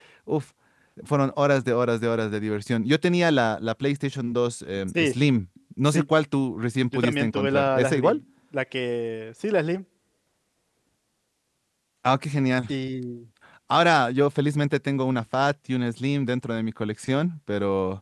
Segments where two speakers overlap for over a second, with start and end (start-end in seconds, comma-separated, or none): 6.9-8.2